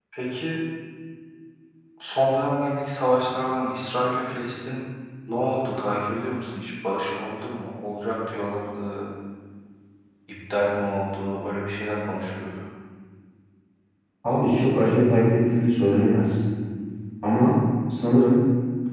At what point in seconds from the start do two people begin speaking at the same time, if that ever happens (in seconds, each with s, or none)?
none